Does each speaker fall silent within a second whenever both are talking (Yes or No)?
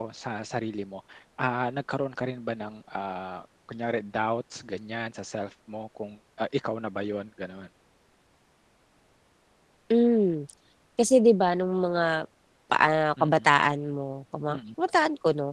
Yes